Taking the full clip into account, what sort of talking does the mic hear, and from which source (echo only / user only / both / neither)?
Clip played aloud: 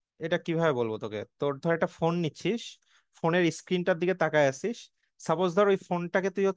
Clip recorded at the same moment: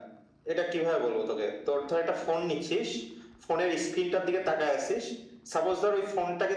echo only